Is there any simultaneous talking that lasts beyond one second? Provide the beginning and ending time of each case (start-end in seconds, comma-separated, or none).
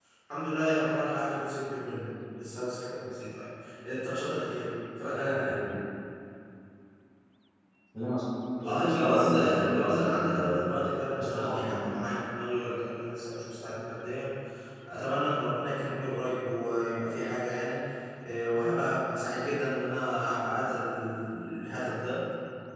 8.6-11.8